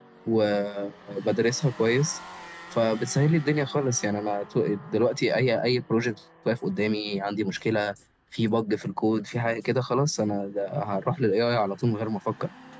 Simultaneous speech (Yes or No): No